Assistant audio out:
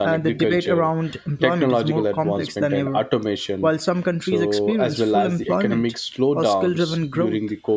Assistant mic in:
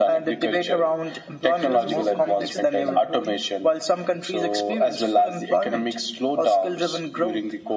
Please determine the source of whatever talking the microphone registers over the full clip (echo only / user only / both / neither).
both